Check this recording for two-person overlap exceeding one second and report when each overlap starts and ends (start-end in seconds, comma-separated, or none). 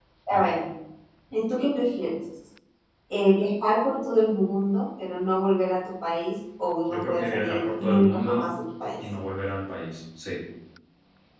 6.9-8.5